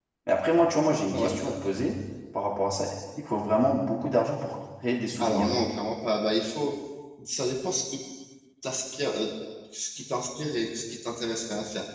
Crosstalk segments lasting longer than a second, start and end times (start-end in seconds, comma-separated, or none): none